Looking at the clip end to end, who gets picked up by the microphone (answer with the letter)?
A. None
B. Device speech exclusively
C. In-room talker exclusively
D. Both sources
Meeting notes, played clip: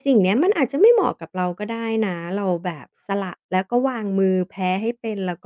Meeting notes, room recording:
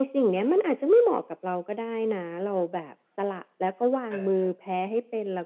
D